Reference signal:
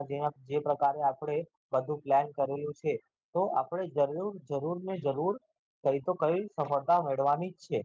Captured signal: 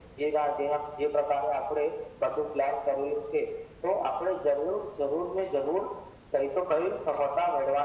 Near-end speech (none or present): none